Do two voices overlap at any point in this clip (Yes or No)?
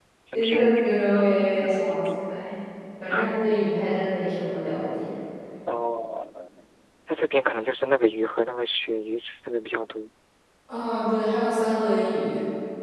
Yes